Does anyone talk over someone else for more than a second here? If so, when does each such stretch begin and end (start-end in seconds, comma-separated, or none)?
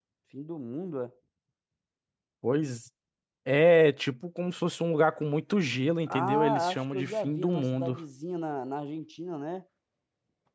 6.1-8.0